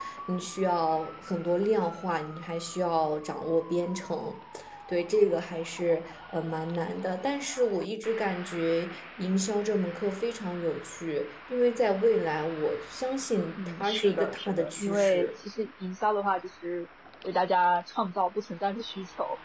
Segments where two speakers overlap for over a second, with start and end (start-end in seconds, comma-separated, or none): 13.8-15.3